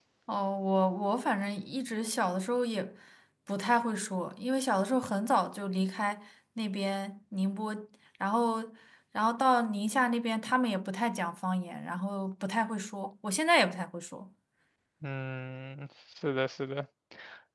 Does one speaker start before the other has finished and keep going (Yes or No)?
No